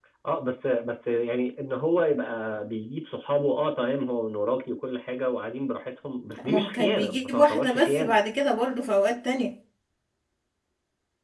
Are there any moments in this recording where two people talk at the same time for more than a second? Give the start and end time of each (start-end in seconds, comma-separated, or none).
6.4-8.2